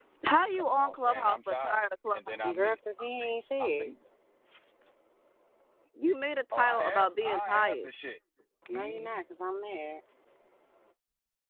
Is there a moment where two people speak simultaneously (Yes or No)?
Yes